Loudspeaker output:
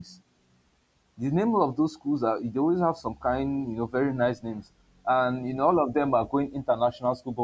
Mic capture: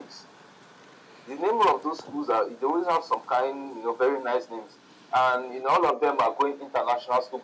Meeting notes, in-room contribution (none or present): none